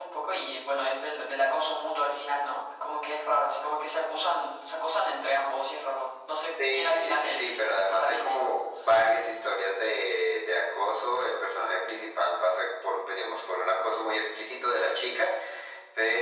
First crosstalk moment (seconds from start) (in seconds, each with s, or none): 6.6 s